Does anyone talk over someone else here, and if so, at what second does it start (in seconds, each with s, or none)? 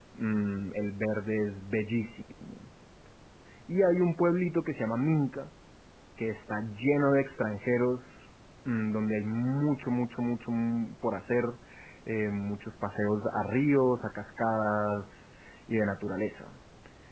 none